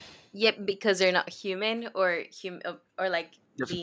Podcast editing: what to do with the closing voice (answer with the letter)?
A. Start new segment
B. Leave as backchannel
A